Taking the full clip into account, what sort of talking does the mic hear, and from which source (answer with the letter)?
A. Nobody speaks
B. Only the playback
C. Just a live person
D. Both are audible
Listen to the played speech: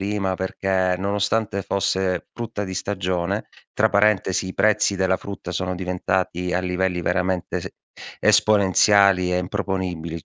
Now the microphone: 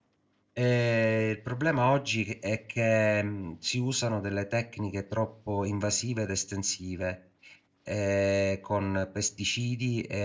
C